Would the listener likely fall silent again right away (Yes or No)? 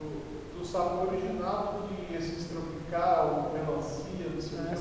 No